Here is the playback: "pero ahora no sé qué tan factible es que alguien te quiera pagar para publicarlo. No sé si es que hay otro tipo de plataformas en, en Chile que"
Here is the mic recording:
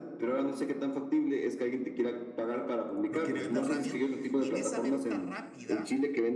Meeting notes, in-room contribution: present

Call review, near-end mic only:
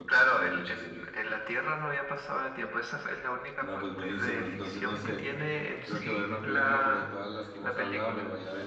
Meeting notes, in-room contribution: present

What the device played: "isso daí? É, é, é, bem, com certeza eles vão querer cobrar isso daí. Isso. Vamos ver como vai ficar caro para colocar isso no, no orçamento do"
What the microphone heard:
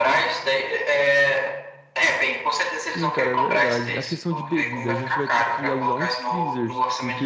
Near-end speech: present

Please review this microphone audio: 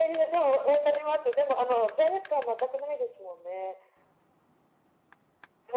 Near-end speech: none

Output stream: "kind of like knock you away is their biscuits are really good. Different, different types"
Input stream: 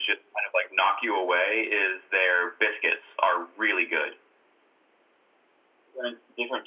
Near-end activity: none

